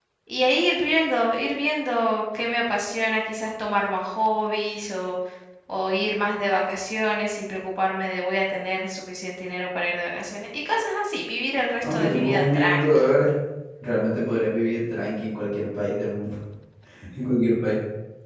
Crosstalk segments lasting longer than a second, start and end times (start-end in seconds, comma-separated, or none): 11.8-13.1